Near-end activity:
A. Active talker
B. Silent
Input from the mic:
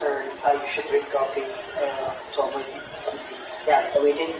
B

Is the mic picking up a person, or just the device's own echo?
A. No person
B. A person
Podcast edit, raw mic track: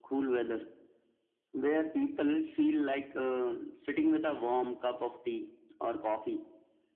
A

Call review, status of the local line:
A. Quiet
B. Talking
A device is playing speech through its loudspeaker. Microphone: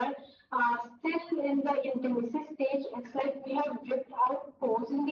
A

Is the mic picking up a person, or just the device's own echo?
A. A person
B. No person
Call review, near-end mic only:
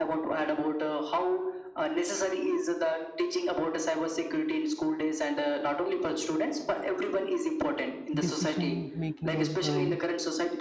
A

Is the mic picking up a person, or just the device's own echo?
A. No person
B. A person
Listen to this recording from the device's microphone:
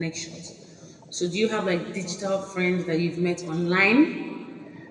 B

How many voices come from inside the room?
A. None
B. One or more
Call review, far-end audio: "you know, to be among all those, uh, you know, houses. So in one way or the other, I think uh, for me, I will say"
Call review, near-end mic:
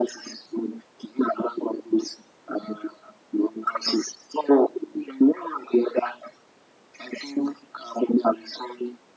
A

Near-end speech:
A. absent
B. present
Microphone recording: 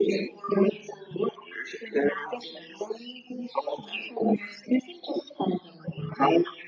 A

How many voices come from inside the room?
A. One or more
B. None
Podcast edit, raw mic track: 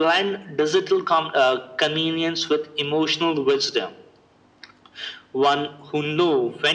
B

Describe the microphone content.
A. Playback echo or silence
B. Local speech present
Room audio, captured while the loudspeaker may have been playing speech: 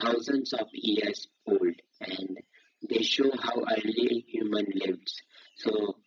A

